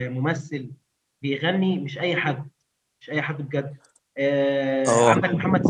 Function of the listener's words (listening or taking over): listening